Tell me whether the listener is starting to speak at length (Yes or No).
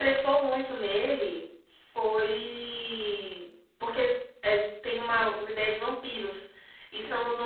No